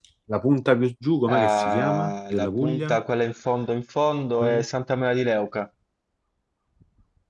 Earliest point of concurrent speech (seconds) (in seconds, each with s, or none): 1.2 s